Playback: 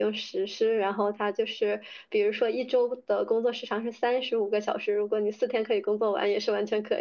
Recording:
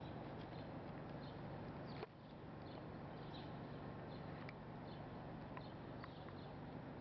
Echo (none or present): none